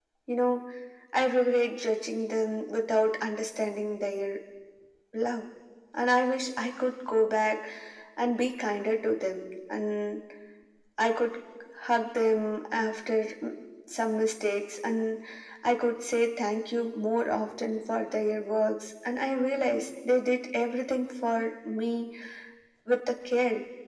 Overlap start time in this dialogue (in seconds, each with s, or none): none